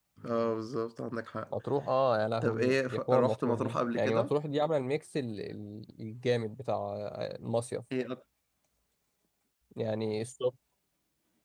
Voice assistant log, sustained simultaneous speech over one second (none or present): present